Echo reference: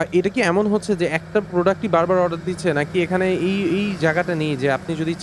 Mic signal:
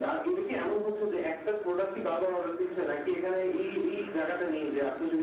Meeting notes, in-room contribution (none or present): none